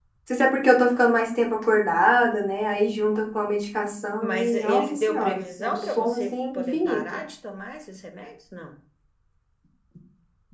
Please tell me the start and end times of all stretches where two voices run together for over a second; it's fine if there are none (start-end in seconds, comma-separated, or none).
4.2-7.2